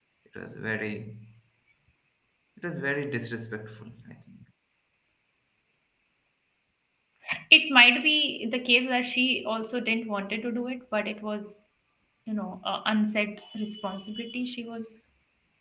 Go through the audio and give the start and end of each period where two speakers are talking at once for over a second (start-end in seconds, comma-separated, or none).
none